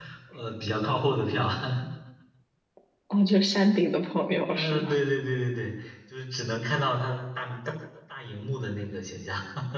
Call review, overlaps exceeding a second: none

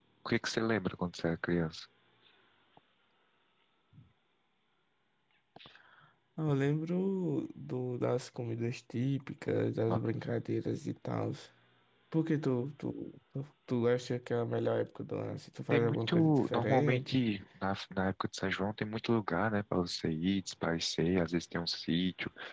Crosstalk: present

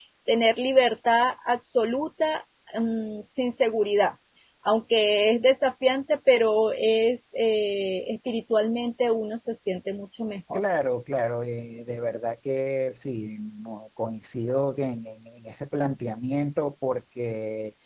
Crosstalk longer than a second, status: none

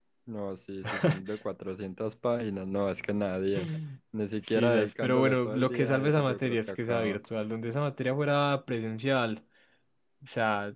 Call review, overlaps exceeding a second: present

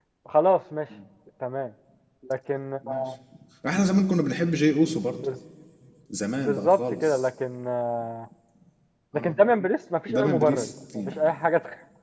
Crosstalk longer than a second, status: present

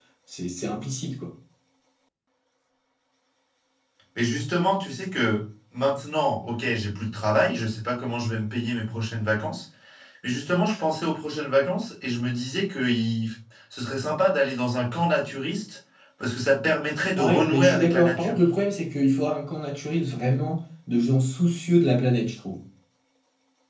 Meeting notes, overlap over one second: present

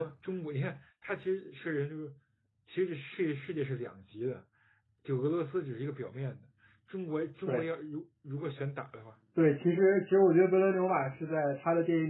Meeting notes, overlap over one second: none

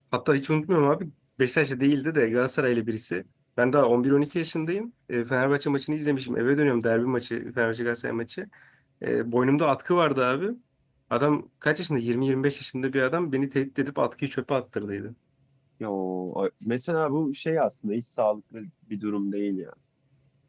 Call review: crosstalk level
none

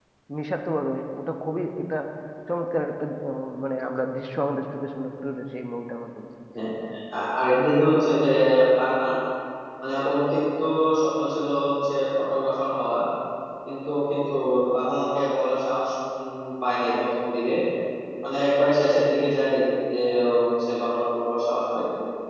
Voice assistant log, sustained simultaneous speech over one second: none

